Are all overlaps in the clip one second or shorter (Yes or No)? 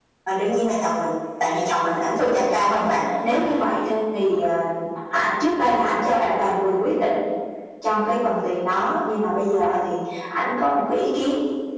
Yes